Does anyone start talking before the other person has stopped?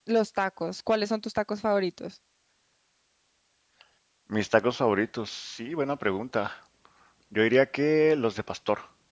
No

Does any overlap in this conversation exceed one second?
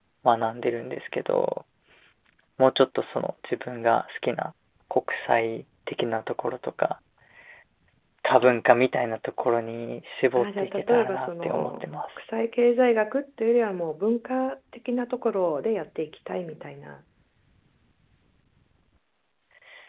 Yes, from 10.4 s

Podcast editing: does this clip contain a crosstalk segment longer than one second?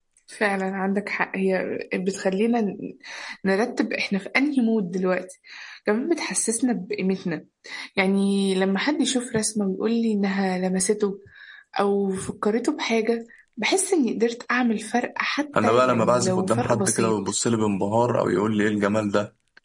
Yes, from 15.5 s

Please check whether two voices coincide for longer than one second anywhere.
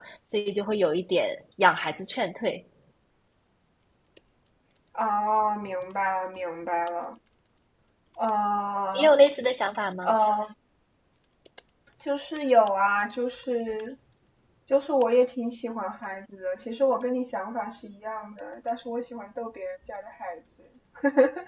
No

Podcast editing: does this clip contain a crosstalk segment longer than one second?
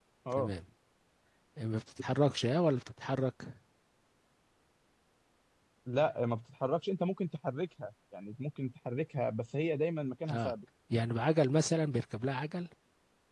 No

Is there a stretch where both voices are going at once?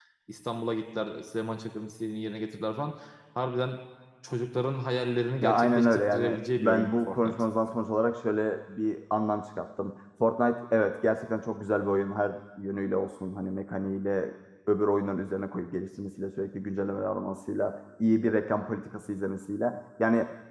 Yes, from 5.4 s

